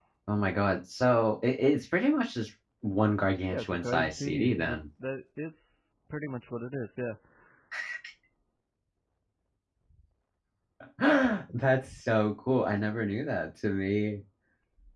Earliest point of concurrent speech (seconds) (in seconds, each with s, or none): 3.5 s